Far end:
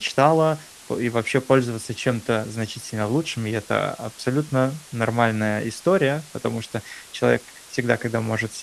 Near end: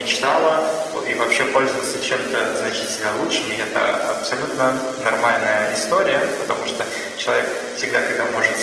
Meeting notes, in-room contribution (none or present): none